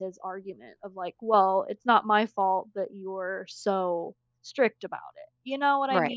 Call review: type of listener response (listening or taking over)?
taking over